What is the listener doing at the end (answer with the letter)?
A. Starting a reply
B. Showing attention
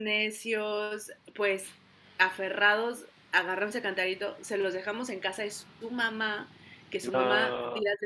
B